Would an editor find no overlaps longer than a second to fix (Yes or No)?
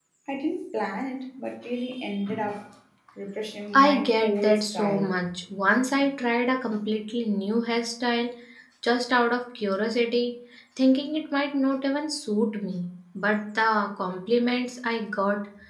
No